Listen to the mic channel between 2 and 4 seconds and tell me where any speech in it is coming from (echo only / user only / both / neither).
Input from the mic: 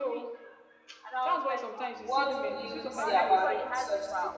both